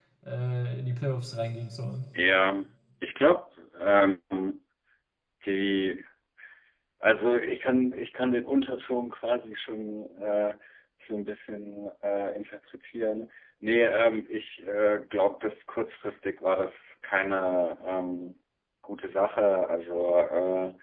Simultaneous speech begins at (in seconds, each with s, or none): none